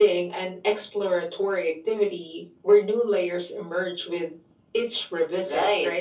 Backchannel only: No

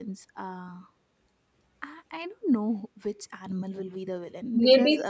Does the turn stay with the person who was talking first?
No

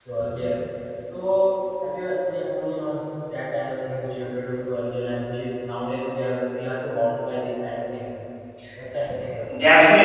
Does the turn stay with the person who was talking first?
No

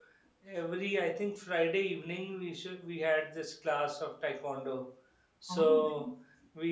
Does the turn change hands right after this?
No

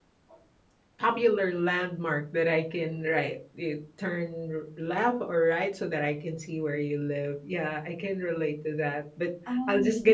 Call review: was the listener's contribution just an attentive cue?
Yes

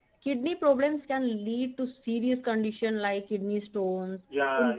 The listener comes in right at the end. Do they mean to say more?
Yes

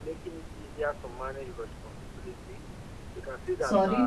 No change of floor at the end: No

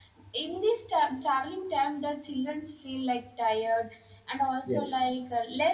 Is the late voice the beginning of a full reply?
No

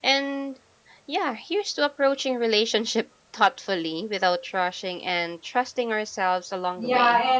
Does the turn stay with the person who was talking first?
No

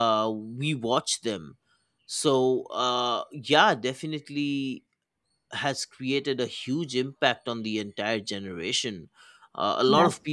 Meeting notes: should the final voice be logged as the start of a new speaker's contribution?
No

